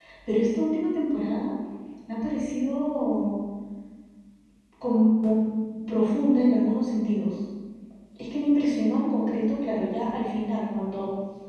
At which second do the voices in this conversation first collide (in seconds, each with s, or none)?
none